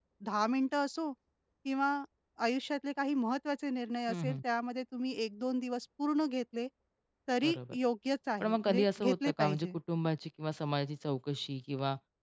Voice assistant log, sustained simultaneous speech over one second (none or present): present